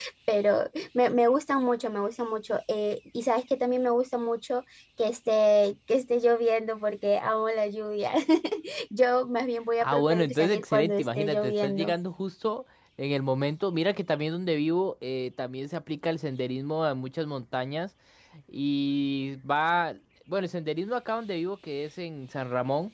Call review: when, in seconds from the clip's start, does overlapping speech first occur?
10 s

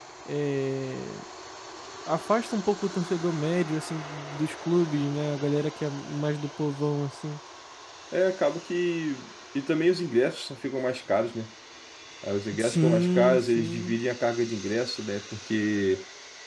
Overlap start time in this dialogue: 13 s

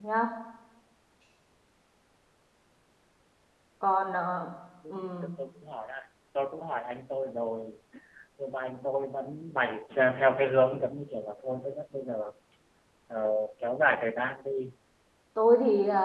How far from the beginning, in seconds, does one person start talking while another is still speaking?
none

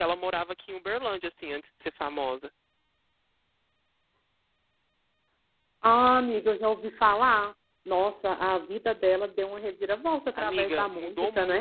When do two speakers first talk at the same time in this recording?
10 s

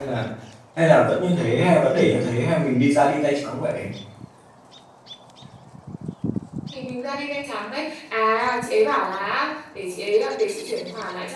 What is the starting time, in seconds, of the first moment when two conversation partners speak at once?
none

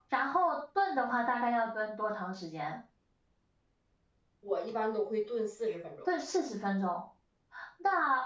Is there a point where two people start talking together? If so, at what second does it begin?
none

